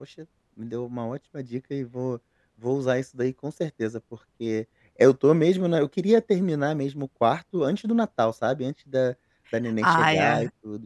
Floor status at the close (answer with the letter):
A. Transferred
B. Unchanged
B